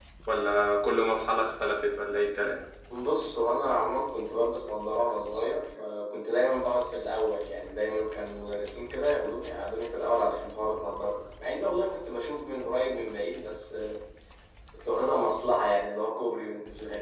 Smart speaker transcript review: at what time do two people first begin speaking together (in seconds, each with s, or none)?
none